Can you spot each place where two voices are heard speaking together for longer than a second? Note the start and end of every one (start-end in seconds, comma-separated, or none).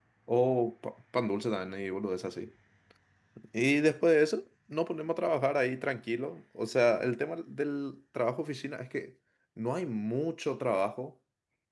none